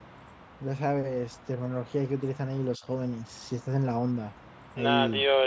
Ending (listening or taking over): taking over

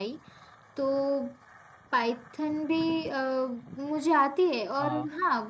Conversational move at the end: listening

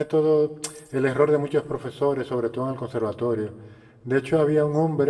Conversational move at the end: listening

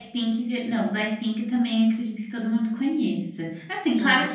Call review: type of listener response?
listening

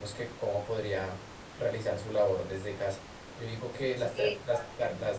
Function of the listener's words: listening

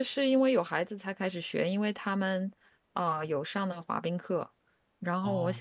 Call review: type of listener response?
listening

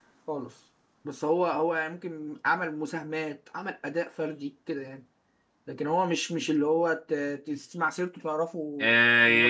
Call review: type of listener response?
taking over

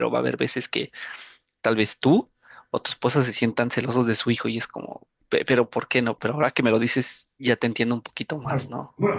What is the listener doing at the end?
taking over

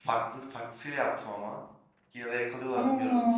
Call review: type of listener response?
listening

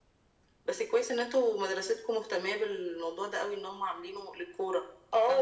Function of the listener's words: taking over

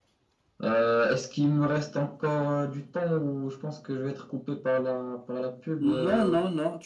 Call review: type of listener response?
taking over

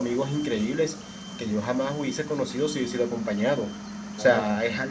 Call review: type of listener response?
listening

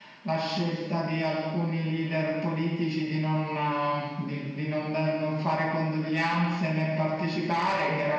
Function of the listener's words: listening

